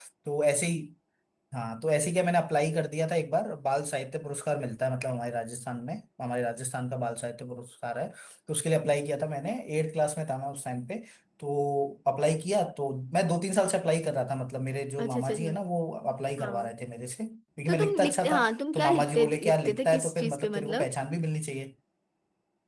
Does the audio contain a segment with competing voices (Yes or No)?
Yes